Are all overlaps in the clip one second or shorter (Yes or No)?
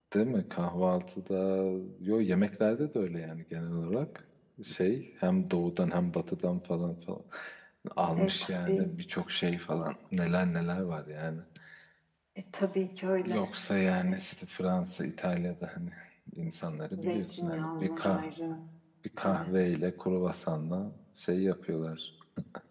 No